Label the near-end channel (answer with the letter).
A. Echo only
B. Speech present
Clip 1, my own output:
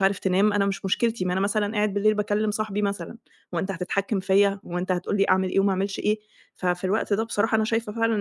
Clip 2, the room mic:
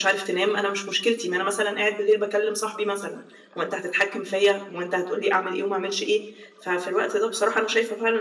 A